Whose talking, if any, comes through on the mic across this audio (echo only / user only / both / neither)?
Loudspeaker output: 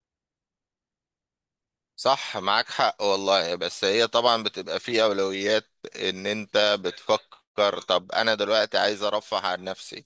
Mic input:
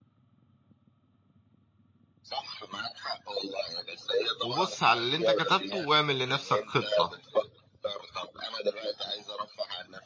both